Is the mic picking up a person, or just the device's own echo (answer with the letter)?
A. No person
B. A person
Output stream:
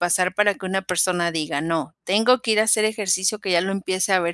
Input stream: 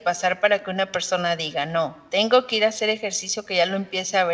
A